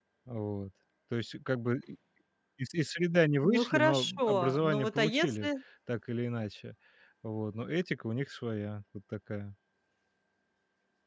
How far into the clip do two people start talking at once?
3.4 s

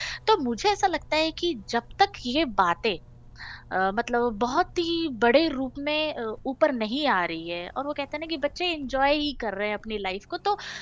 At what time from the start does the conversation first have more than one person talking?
none

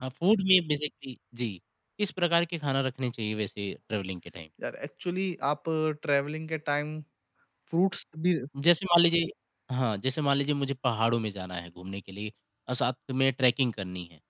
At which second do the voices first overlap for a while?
none

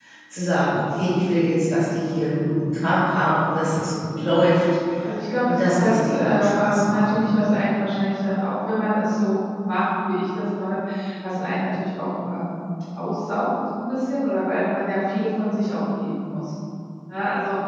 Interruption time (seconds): 5.5 s

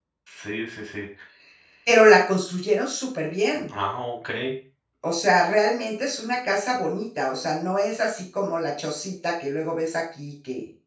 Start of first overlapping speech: none

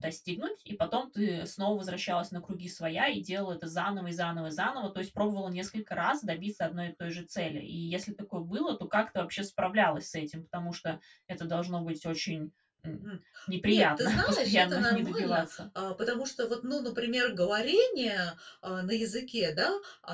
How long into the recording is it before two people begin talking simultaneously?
13.7 s

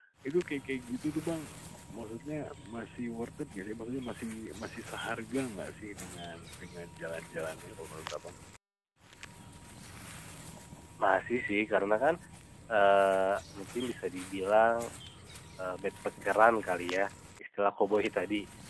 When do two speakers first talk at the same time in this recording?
none

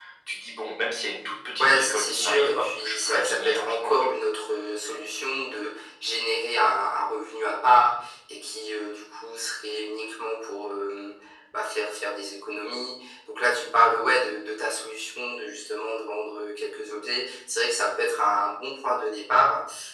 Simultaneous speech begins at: 1.6 s

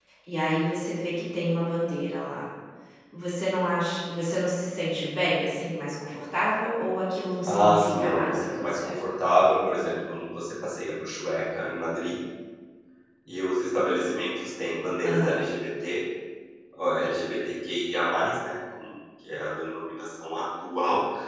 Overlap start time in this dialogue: 7.5 s

